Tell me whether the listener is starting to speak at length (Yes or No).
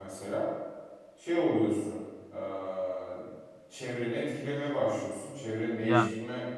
No